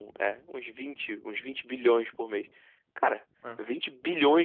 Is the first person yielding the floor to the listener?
No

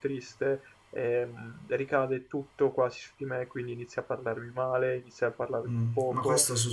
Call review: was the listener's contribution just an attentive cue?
No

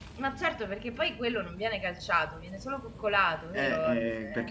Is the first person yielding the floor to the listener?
Yes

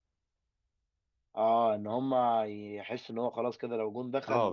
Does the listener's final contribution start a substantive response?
Yes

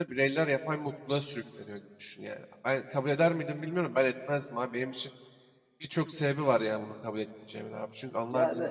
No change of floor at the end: Yes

